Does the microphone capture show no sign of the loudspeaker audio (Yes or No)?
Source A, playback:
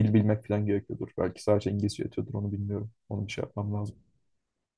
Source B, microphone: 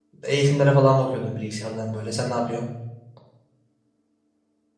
Yes